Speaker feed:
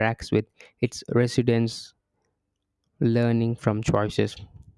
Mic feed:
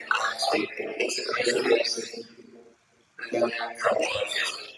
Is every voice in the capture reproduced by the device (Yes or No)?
Yes